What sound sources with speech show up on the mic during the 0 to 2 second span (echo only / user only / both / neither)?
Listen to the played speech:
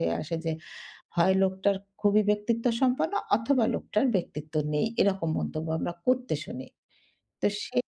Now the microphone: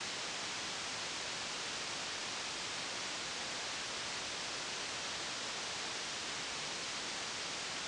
neither